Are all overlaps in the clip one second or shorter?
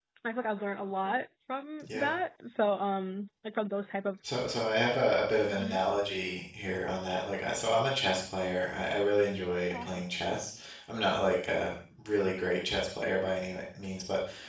Yes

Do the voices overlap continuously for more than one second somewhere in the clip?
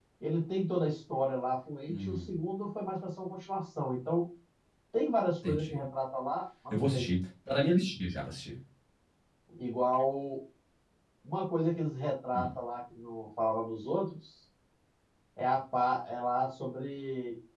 No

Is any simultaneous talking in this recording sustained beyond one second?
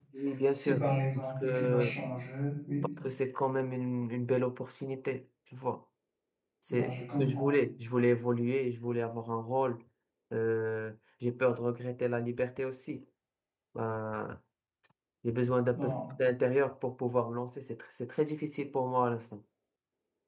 Yes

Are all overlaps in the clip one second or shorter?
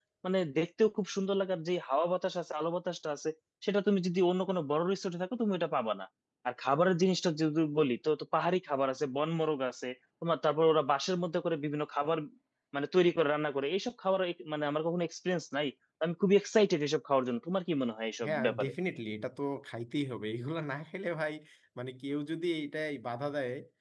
Yes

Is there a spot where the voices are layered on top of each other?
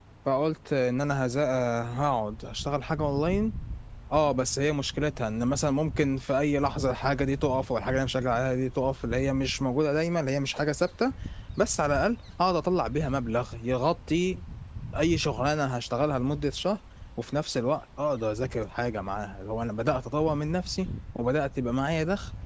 No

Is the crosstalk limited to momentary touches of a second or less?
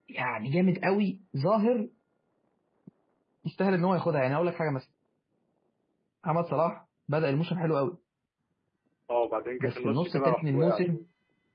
No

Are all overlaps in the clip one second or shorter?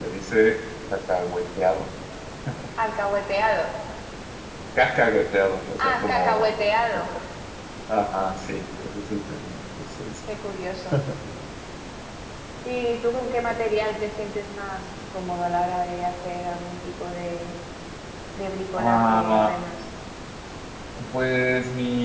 No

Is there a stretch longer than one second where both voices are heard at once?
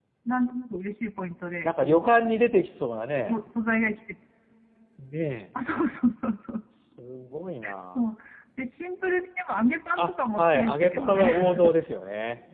Yes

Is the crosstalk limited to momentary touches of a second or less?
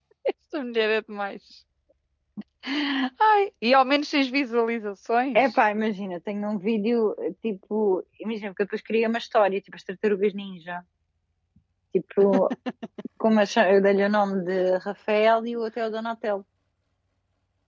Yes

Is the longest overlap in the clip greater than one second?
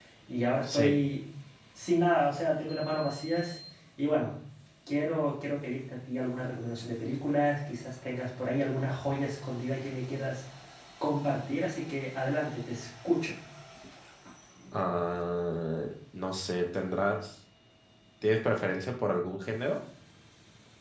No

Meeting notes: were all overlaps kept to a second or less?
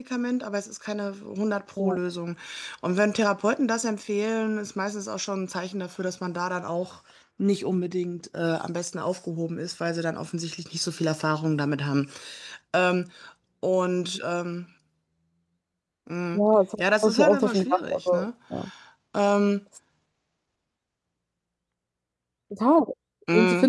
No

